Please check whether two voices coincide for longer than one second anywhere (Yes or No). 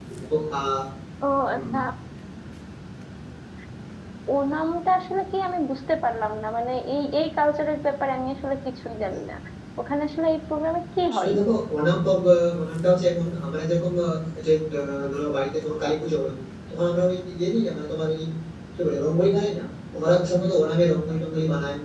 No